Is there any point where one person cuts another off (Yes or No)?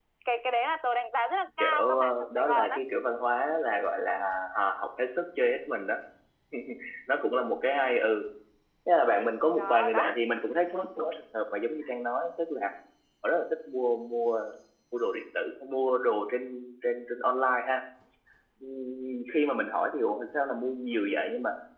Yes